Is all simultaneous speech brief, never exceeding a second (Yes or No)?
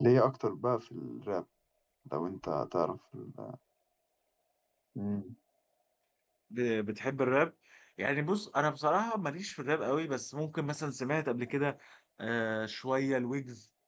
Yes